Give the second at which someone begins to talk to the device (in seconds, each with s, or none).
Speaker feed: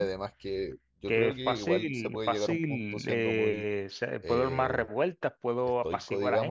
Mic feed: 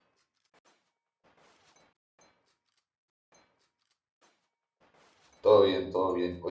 5.4 s